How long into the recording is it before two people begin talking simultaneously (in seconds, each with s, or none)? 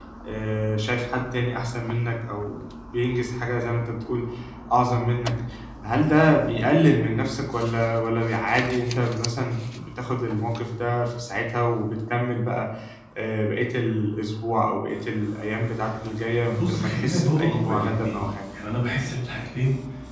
16.5 s